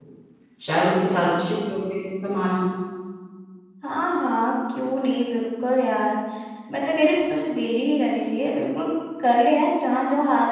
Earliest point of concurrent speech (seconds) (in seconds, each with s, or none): none